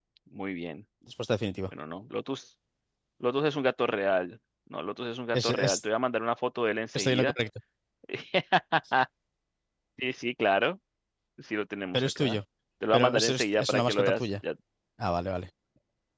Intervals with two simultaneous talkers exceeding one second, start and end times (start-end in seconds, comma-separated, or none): 12.9-14.1